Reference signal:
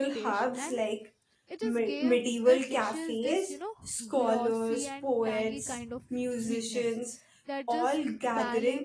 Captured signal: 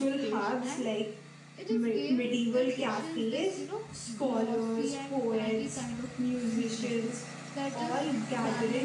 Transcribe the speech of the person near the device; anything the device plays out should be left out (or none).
none